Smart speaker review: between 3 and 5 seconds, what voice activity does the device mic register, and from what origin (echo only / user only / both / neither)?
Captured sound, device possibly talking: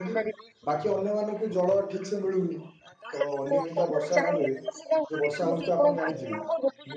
both